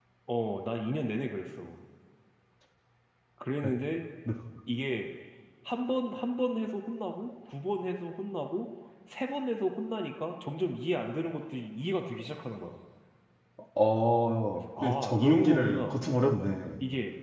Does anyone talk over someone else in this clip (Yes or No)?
Yes